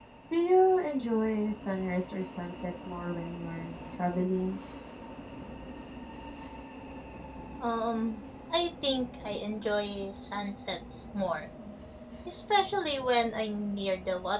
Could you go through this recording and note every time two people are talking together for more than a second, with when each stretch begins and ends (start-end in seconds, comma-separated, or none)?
none